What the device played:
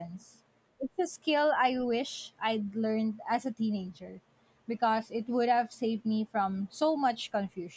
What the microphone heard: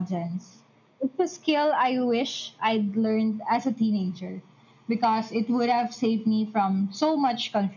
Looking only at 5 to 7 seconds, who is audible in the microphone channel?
echo only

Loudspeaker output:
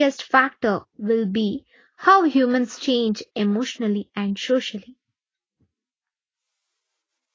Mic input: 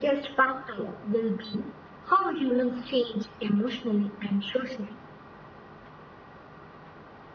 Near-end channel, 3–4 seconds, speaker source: echo only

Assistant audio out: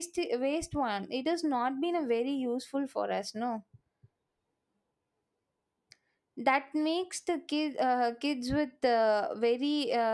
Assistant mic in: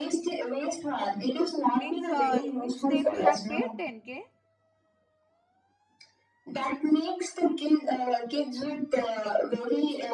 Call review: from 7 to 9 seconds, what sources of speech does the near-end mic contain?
echo only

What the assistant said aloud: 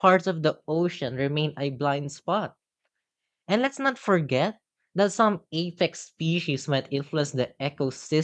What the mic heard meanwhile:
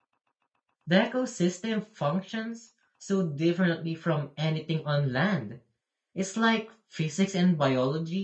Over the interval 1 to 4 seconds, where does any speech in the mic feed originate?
user only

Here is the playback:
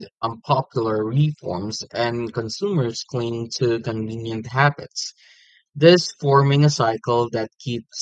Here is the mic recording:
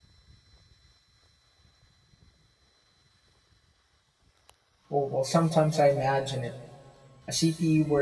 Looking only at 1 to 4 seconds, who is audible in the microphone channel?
neither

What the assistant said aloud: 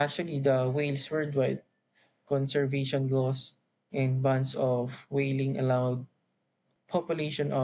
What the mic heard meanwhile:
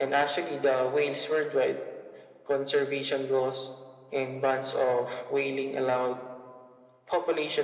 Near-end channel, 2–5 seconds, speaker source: echo only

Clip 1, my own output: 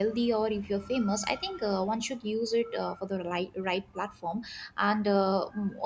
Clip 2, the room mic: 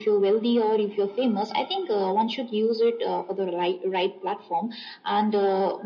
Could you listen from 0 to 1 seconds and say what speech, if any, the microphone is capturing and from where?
echo only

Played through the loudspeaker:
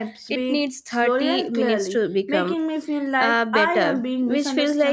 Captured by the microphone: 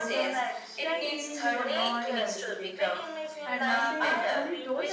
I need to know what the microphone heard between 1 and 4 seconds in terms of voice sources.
both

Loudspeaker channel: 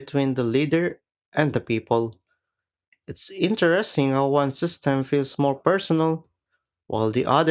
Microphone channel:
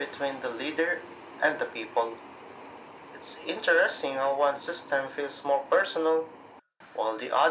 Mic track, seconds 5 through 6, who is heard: echo only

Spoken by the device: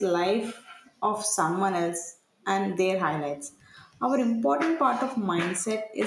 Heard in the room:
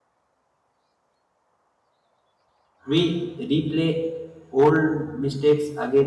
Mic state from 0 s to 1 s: neither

